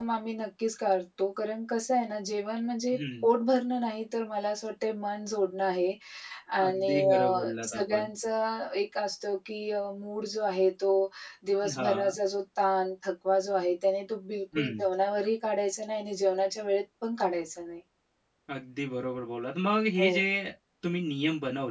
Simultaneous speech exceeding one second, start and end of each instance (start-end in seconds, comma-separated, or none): 6.6-8.1